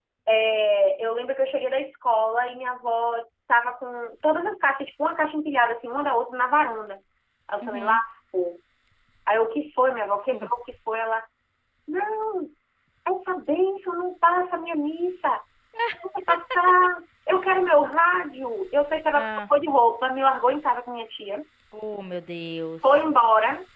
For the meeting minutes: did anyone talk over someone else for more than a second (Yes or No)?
No